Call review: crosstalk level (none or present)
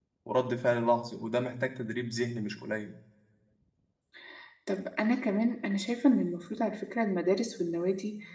none